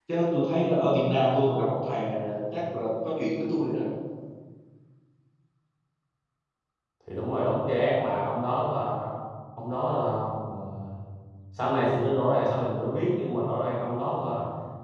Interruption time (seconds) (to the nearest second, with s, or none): none